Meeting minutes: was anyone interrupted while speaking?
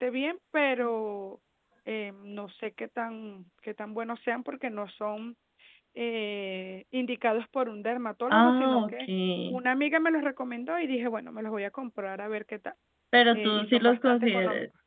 Yes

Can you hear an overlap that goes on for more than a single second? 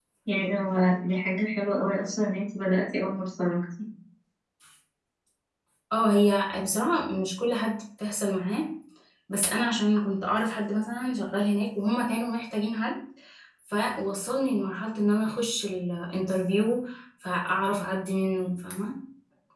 No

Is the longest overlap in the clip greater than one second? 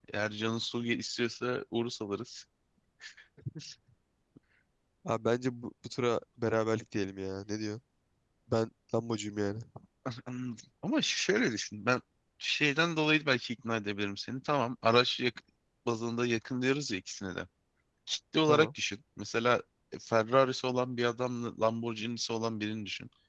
No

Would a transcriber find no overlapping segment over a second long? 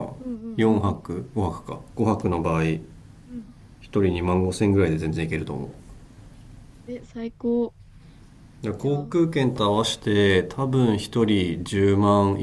Yes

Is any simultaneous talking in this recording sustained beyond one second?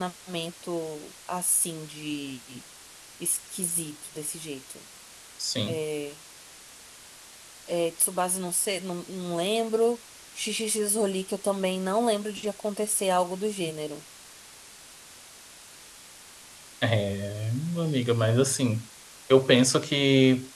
No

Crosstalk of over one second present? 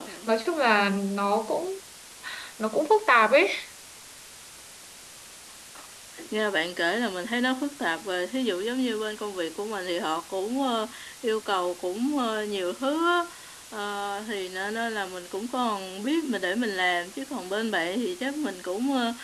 No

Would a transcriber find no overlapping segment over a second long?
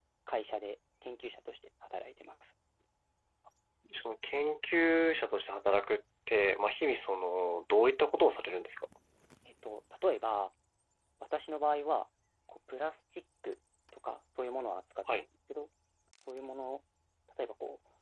Yes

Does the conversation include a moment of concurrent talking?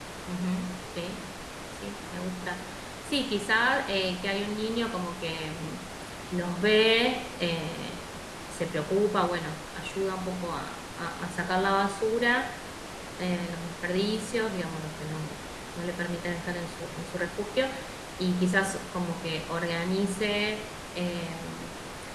No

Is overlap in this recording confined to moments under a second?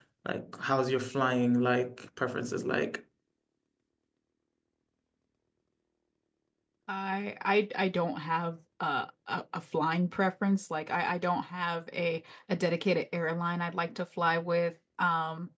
Yes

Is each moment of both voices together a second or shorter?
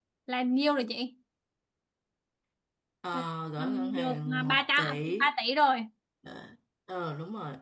No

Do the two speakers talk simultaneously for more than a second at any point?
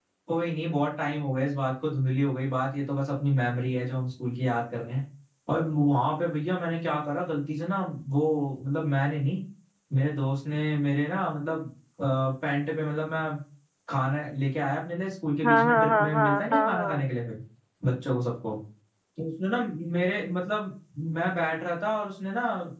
Yes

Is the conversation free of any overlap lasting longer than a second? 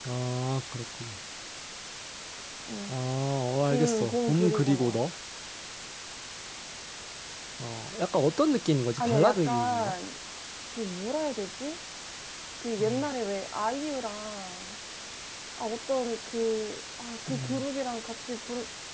No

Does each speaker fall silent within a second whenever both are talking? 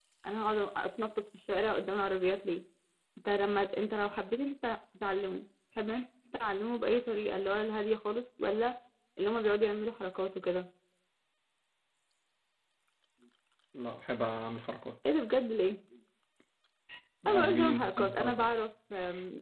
No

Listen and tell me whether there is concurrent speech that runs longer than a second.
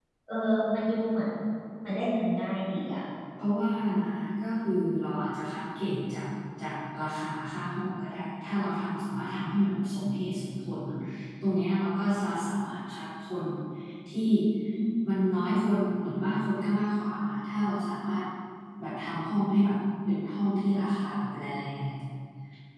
No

